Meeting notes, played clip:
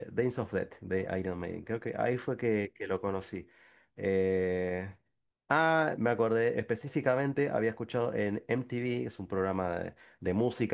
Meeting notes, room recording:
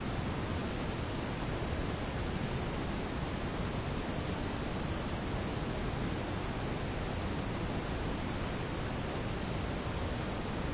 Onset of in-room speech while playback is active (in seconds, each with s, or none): none